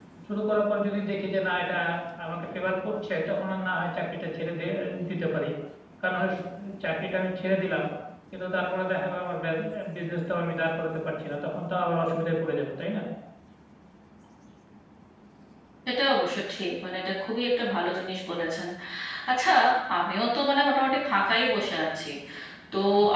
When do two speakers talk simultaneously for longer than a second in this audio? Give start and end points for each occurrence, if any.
none

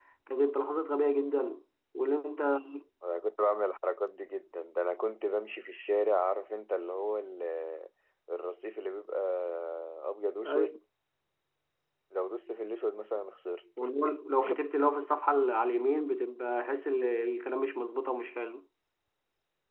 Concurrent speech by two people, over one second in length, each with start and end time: none

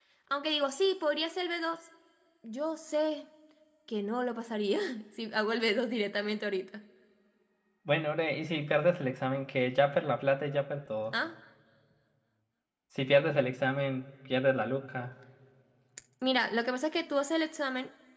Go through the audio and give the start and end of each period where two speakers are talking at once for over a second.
none

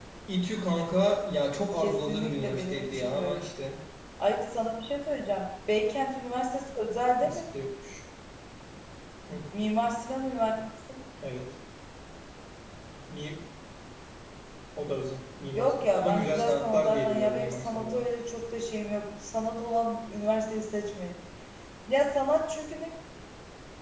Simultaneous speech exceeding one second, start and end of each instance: 1.8-3.5, 15.5-18.0

